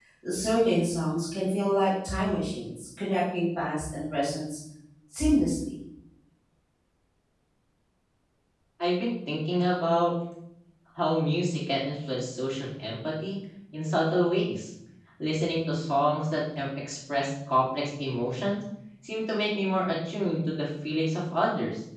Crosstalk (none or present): none